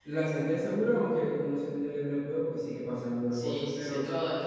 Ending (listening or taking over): taking over